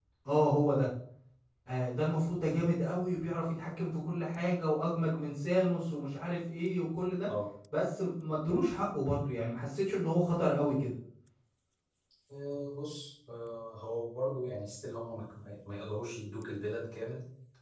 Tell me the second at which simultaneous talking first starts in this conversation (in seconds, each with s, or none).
none